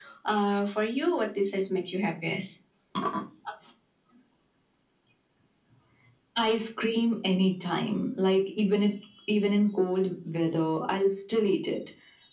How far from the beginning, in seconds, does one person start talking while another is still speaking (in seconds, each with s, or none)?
none